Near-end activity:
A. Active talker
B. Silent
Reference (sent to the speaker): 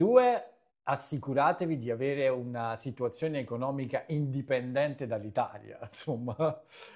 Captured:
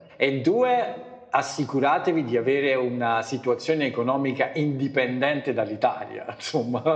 B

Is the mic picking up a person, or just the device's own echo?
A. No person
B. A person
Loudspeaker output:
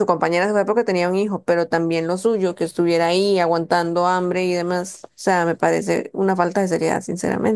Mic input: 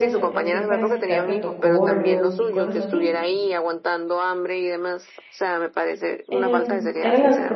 B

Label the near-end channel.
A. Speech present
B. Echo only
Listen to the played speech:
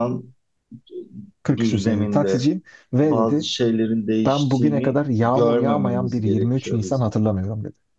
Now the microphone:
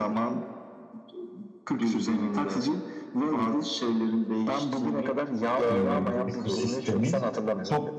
A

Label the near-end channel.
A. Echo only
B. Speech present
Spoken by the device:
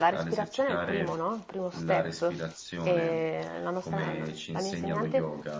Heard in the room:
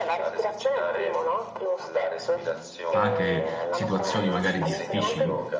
B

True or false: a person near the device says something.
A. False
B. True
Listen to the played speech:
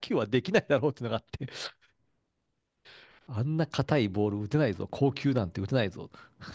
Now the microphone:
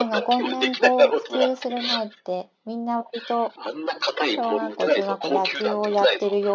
B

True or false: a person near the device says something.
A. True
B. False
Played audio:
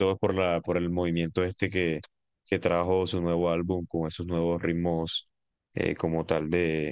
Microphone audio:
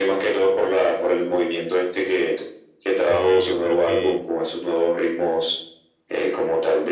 A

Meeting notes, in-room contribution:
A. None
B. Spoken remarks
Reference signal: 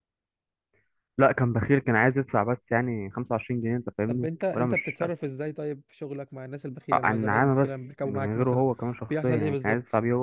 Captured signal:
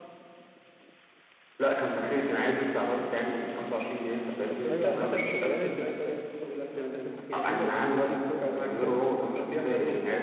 B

